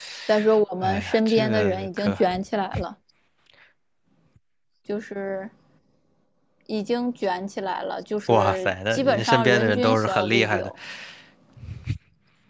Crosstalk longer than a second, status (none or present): present